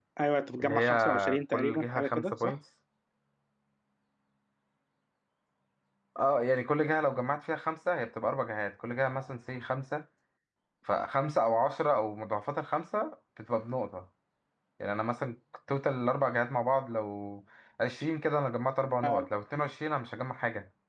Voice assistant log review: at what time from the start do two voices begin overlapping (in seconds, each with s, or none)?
0.6 s